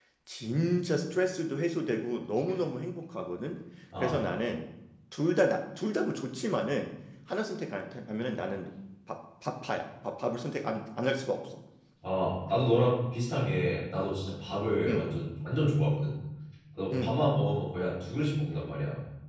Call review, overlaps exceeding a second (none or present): none